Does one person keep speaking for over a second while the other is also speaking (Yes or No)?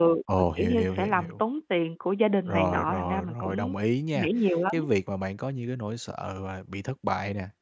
Yes